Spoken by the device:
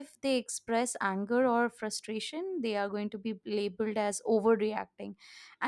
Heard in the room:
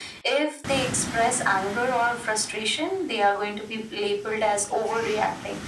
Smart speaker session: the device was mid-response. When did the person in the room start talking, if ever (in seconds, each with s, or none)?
none